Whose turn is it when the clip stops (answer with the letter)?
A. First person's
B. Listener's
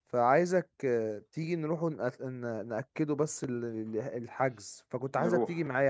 A